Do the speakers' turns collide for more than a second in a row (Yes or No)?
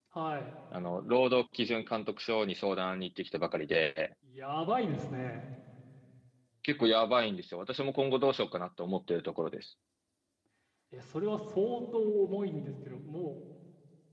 No